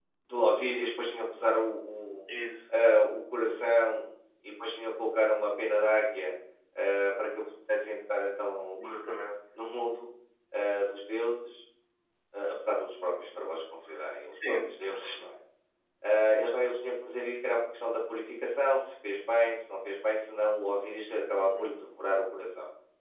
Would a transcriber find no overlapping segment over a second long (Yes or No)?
Yes